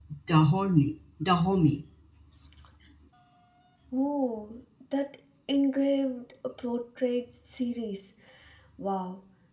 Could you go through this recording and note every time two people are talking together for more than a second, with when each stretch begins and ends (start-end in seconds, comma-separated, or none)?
none